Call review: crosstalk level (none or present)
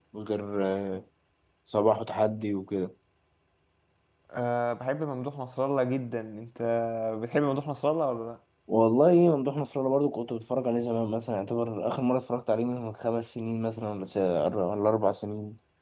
none